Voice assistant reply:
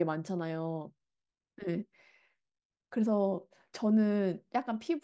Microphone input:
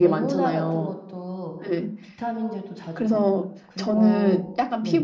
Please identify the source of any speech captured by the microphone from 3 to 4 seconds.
both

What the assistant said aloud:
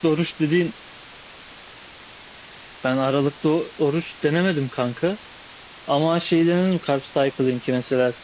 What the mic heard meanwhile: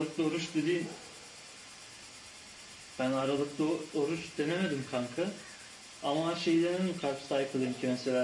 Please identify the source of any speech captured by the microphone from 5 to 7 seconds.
echo only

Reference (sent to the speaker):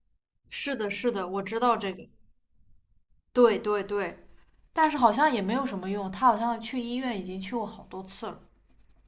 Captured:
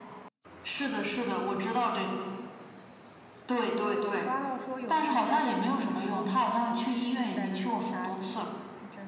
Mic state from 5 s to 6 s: both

